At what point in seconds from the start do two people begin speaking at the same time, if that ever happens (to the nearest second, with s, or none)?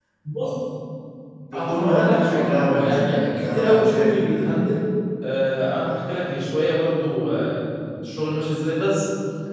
2 s